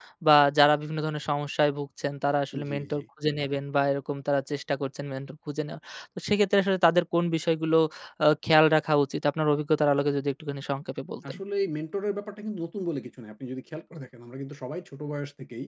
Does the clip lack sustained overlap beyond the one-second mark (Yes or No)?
Yes